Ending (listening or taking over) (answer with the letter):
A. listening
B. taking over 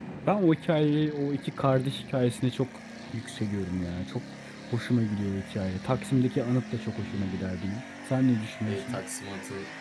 B